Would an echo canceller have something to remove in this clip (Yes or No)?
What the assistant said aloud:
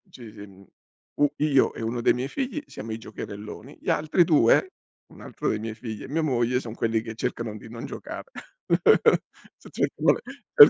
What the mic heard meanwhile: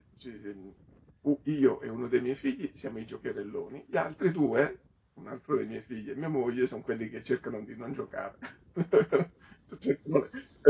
Yes